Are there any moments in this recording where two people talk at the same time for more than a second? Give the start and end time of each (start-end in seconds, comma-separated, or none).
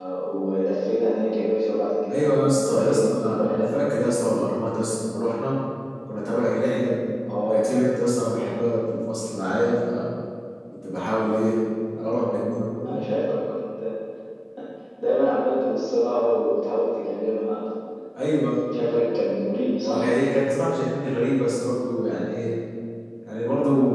2.1-3.6